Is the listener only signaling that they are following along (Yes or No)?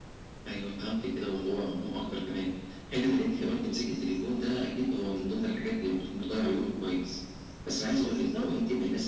Yes